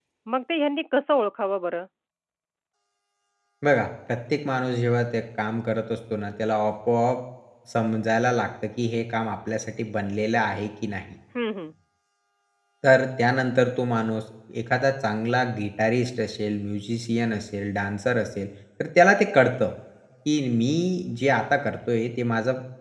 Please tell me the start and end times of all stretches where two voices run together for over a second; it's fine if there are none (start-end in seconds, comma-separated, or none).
none